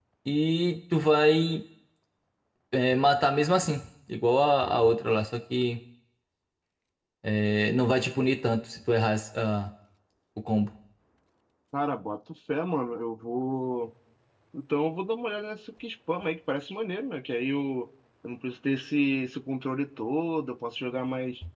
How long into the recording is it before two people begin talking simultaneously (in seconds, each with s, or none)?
none